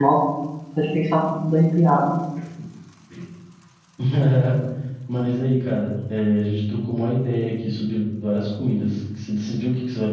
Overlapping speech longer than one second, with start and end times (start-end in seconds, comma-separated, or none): none